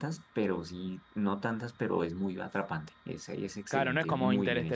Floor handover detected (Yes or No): Yes